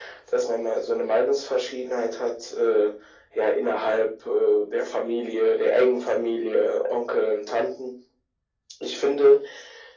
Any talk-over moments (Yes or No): No